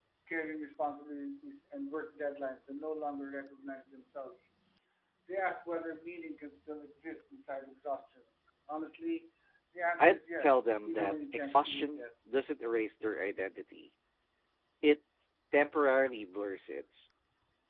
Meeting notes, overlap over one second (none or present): present